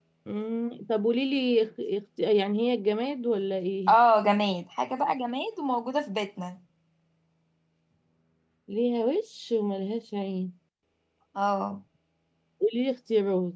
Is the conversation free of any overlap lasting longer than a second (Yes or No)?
Yes